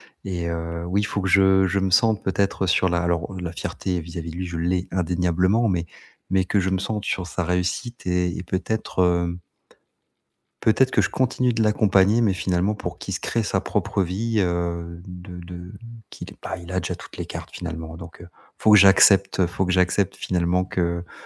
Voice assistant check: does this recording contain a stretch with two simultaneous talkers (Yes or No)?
No